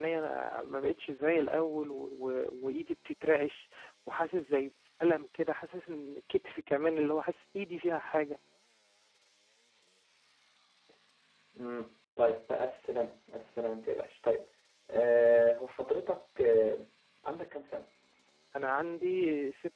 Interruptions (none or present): none